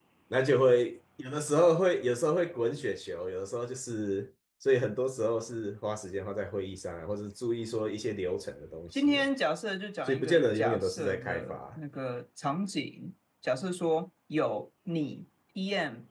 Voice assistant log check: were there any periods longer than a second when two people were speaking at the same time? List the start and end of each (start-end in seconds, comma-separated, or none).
10.1-11.6